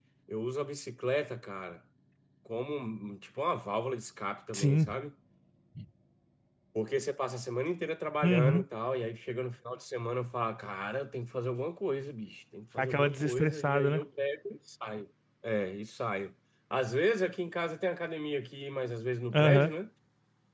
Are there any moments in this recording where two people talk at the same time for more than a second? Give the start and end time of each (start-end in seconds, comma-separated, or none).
12.8-14.0